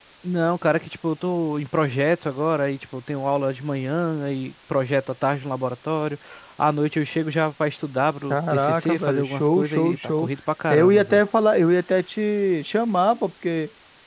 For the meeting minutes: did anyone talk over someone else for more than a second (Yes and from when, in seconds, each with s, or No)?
Yes, from 8.3 s